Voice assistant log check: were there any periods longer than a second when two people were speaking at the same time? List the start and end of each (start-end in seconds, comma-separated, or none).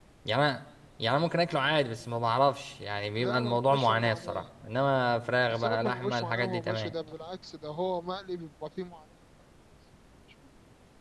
3.2-4.4, 5.5-6.9